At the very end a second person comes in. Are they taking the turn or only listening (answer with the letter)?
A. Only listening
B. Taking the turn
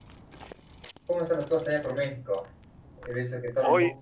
A